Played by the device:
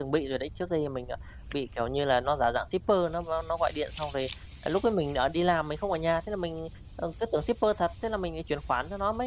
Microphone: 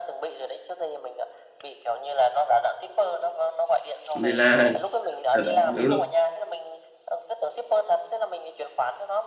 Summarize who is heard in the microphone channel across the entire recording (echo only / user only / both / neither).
both